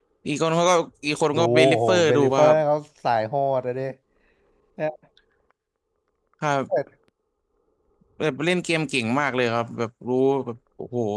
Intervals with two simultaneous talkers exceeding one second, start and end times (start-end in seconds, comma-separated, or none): 1.4-2.6